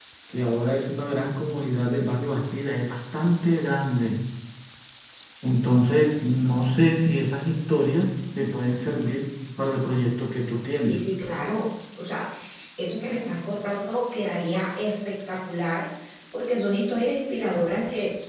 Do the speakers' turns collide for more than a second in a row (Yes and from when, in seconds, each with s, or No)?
No